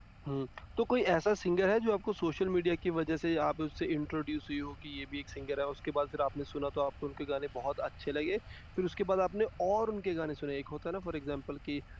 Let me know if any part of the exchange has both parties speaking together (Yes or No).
No